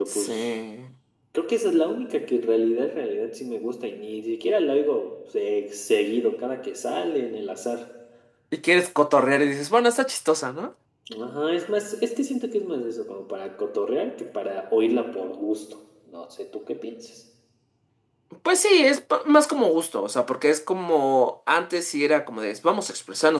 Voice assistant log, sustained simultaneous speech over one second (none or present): none